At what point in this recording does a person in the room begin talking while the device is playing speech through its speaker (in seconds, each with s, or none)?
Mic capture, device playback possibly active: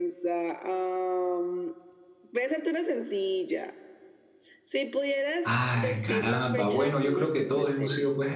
5.4 s